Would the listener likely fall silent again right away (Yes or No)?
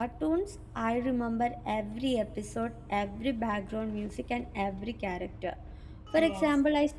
Yes